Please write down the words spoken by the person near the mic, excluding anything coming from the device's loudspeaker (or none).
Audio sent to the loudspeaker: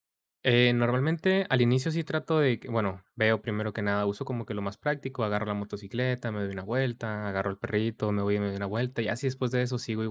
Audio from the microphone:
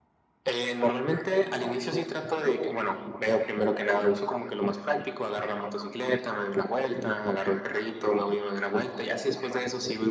none